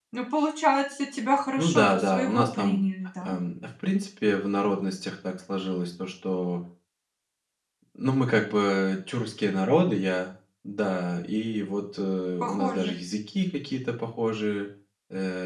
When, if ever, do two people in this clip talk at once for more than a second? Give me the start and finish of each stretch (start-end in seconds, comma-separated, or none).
1.6-2.8